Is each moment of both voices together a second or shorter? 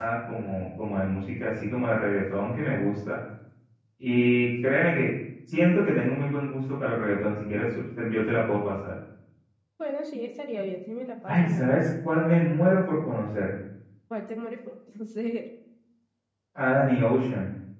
Yes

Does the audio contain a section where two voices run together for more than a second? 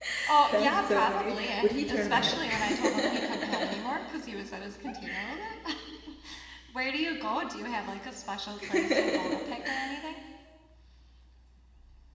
Yes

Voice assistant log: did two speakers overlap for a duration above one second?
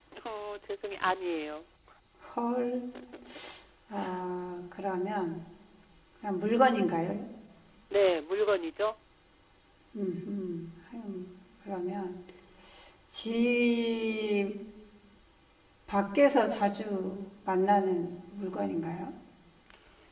No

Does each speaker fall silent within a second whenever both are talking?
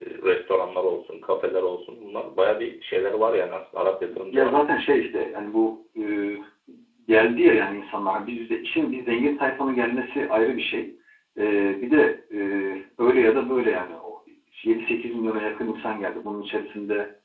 Yes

